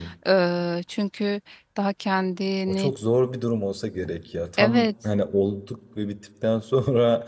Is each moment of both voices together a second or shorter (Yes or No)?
Yes